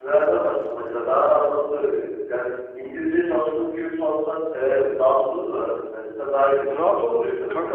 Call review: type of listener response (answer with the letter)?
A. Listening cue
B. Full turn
B